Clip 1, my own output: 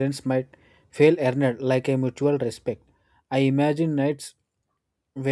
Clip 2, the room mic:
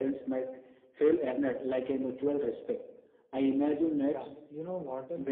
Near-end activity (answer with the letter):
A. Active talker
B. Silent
A